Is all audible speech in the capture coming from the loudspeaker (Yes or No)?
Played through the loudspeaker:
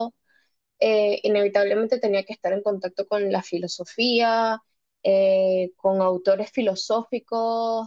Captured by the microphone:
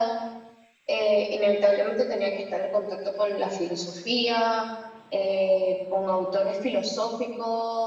Yes